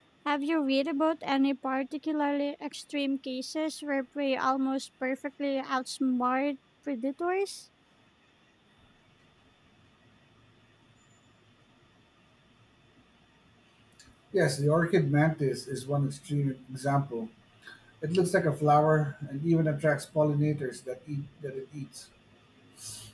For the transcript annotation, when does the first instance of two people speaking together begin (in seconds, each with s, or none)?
none